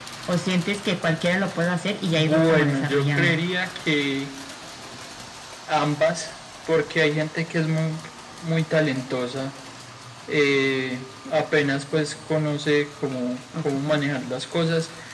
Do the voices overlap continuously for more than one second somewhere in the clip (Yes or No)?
Yes